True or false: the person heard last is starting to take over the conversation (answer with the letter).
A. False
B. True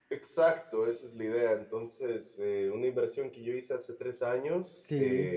A